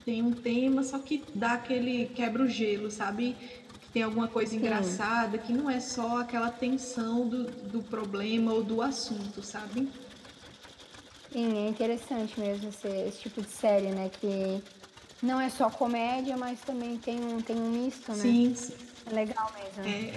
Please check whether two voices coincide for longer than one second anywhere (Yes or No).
No